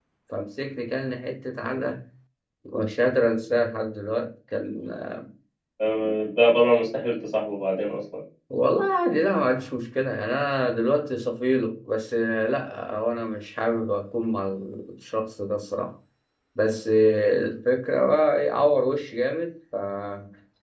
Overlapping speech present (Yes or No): No